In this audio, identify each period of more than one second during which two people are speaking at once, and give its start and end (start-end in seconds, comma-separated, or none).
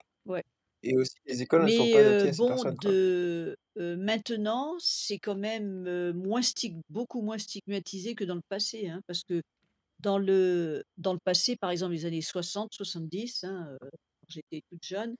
1.6-2.9